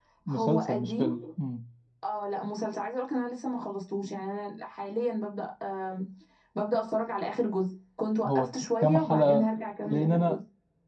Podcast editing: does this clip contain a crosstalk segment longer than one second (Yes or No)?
Yes